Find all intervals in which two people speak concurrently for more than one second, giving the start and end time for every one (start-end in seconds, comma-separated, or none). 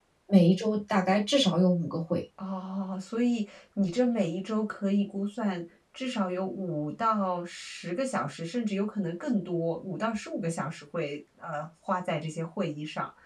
none